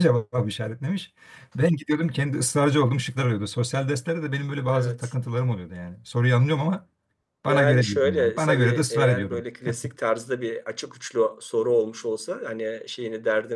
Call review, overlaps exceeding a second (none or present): present